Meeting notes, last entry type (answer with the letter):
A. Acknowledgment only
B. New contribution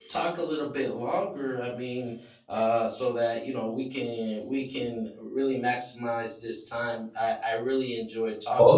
B